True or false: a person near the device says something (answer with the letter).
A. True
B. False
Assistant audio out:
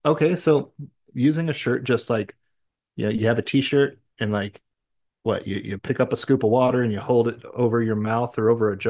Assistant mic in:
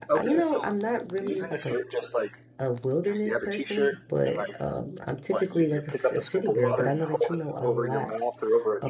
A